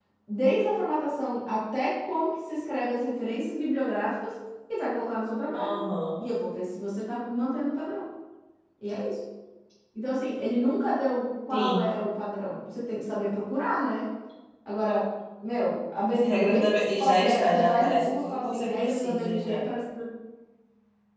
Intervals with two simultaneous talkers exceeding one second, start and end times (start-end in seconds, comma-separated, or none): 16.0-19.7